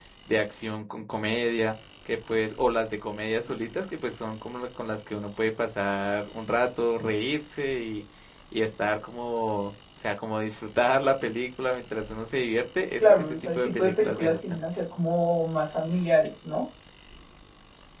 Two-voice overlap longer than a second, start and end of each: 13.0-14.6

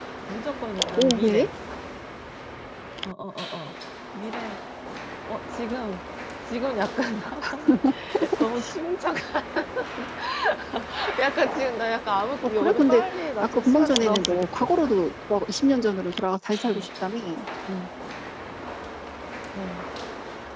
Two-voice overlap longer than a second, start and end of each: 12.4-14.7

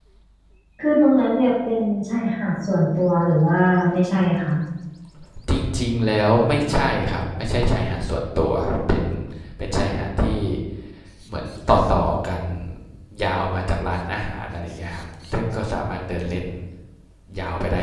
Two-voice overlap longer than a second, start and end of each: none

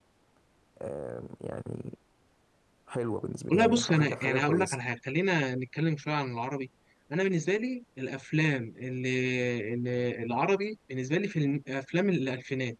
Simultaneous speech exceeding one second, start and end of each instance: 3.5-4.8

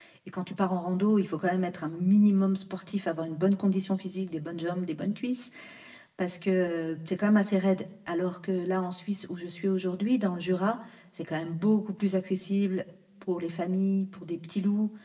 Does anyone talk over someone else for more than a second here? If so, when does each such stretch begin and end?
none

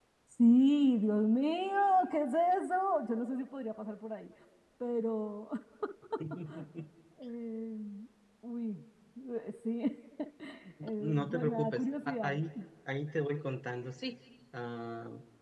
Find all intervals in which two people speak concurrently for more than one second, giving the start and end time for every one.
11.0-12.4

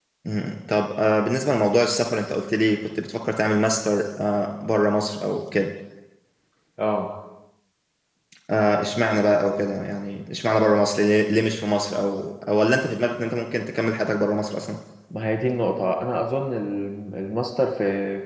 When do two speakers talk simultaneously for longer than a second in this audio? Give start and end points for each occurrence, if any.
none

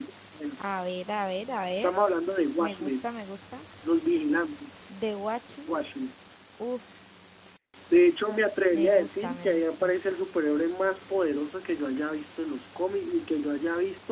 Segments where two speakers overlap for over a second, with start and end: 8.7-9.9

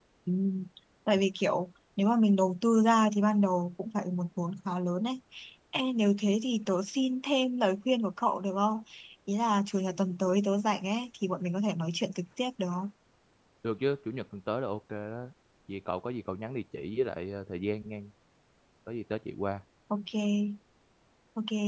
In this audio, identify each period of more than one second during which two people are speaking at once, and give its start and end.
none

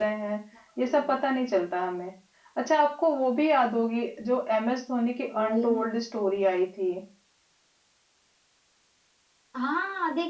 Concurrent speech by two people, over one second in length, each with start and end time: none

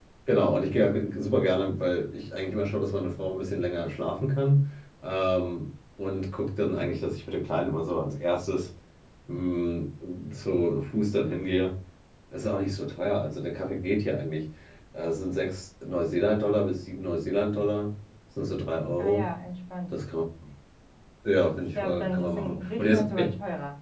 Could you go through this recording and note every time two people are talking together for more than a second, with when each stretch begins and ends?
21.8-23.0

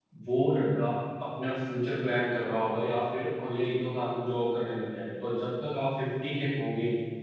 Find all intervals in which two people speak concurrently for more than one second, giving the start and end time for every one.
none

